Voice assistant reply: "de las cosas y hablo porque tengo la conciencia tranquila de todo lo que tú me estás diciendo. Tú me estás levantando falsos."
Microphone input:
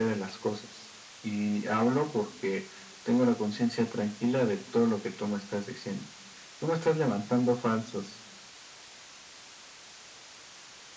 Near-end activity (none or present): none